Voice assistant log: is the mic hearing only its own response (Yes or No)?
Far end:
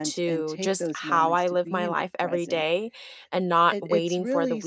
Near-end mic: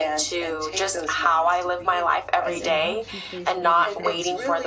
No